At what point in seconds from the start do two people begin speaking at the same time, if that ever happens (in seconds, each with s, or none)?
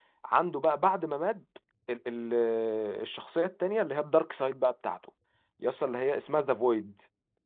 none